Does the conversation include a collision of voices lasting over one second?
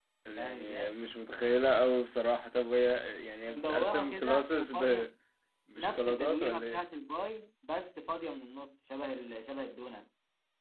Yes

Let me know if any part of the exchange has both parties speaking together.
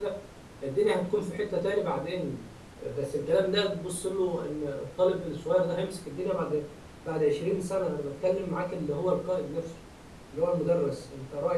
No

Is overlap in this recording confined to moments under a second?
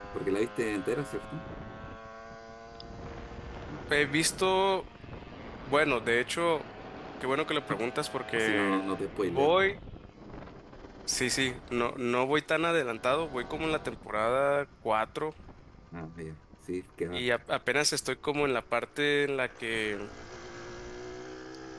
Yes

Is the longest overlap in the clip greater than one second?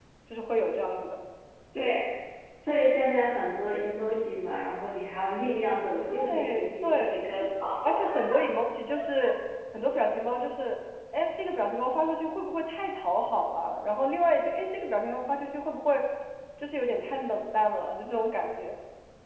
Yes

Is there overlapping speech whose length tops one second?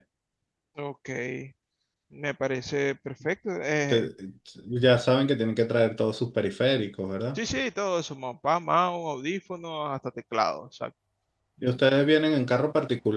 No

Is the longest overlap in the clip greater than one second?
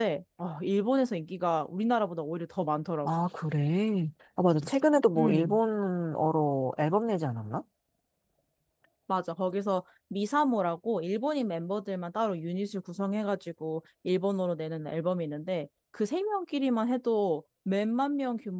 No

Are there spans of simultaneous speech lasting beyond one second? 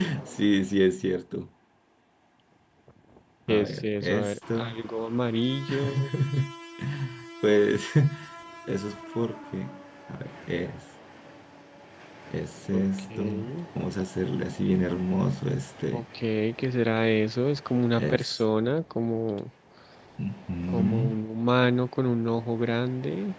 Yes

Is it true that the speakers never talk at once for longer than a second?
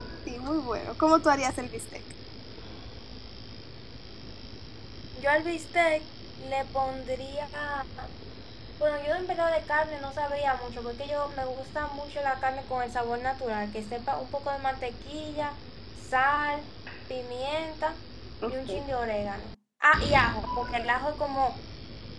Yes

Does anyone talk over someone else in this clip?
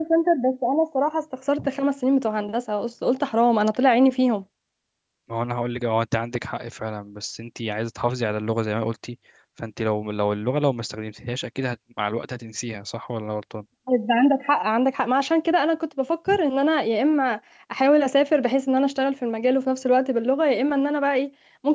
No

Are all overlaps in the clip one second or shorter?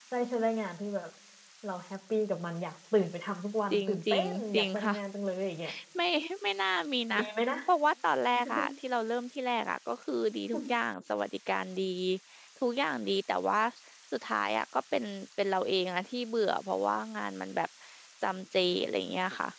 No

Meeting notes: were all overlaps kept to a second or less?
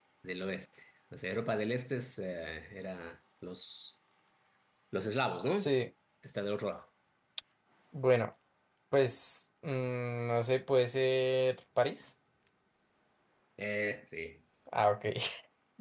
Yes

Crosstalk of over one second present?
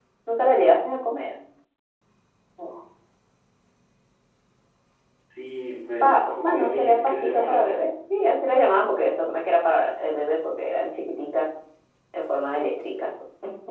Yes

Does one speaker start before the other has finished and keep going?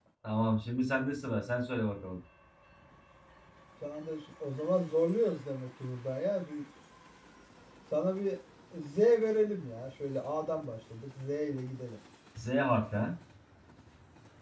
No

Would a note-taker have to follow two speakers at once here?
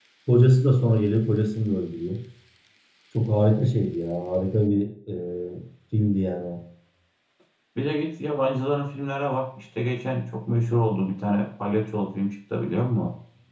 No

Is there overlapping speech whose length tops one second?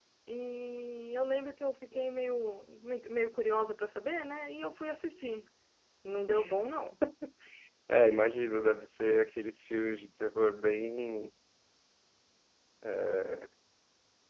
No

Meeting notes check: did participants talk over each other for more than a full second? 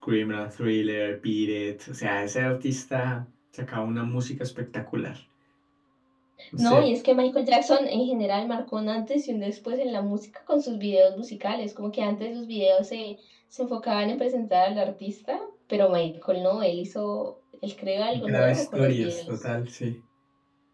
Yes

